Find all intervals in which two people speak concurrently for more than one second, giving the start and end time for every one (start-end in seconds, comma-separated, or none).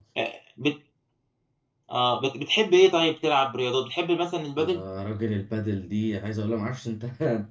none